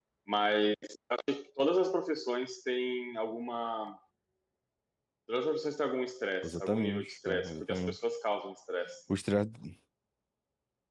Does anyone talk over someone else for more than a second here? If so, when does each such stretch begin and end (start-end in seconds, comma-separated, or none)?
6.4-8.0